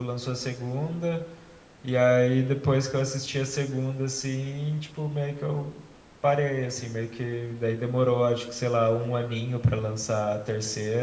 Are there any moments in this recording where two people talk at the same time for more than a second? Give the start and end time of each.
none

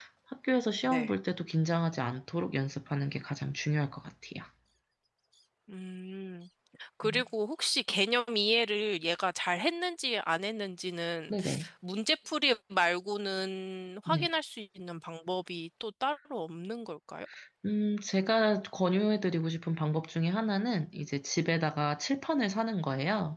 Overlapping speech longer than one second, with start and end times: none

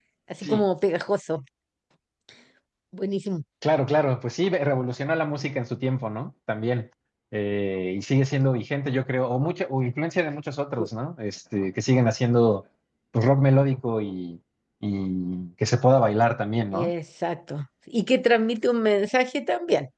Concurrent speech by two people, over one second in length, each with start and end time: none

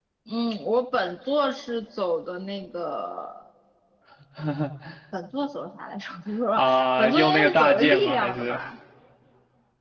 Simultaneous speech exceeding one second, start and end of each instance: 6.6-8.6

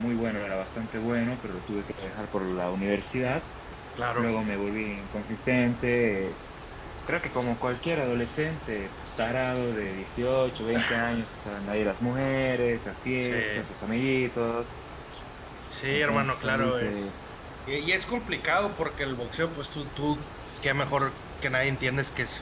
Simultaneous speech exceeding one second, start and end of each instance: 15.9-17.1

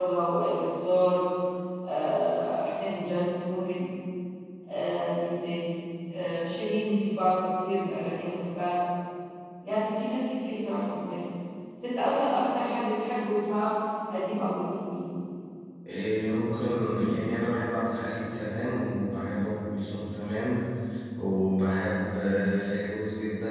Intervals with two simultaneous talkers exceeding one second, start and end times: none

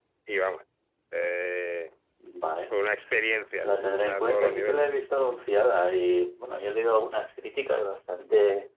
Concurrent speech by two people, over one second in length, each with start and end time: 3.6-5.0

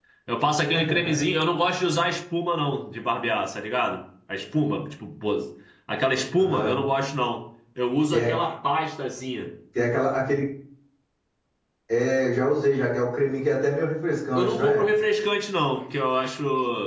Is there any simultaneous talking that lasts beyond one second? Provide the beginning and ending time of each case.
none

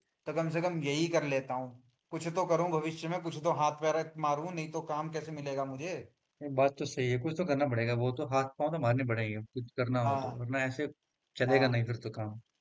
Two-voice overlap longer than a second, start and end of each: none

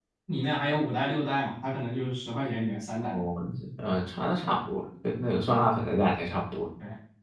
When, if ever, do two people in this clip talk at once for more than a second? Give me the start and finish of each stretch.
none

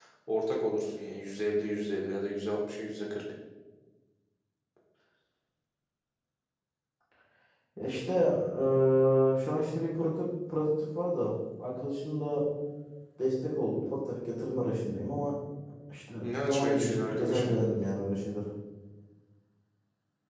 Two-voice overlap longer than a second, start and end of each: 16.2-17.5

